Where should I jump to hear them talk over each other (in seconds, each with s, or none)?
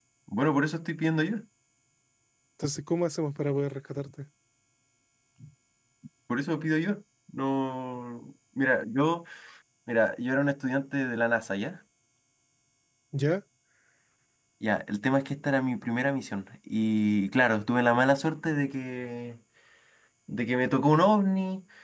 none